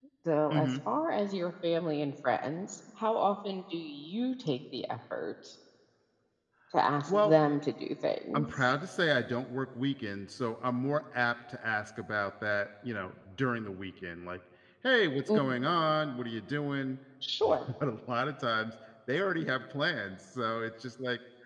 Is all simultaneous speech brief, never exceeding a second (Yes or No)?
Yes